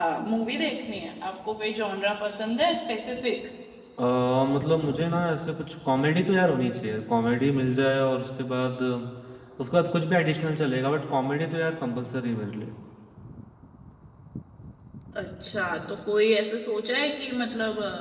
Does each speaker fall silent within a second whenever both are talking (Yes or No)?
Yes